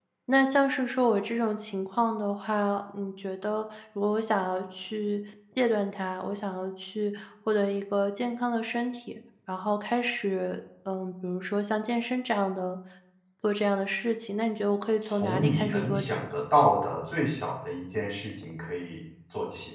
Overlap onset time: 15.1 s

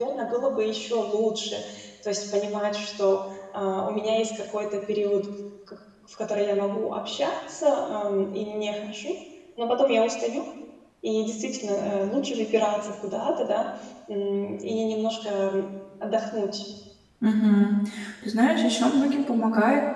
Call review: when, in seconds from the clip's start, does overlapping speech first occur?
none

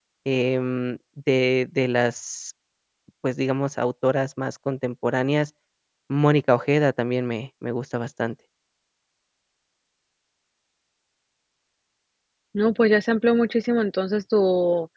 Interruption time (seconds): none

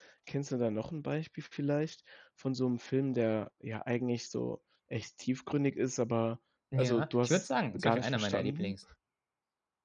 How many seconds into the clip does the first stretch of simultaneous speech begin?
6.7 s

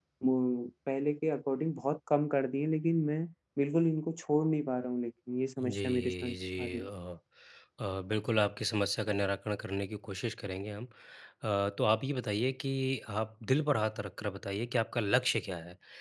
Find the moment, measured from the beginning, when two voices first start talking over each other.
5.6 s

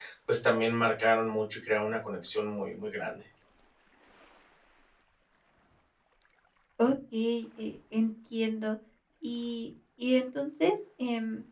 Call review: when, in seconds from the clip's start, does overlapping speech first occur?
none

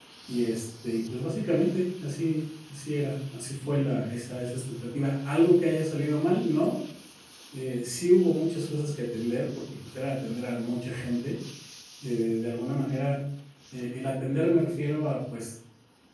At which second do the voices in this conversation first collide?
none

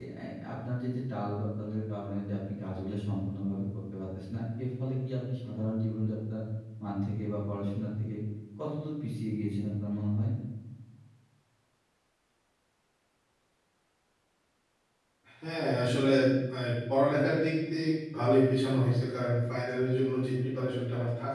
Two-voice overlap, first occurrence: none

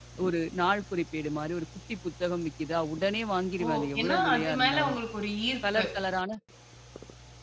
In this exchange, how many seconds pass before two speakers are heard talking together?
3.6 s

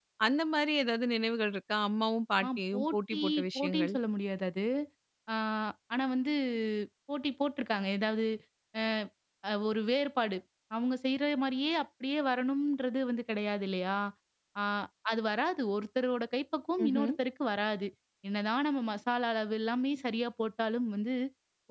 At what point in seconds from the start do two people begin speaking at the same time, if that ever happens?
2.4 s

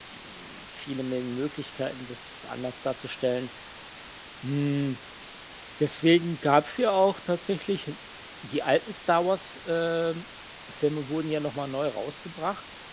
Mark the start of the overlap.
none

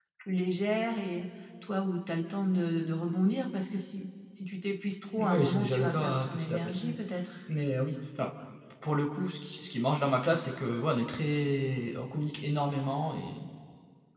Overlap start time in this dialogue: 5.2 s

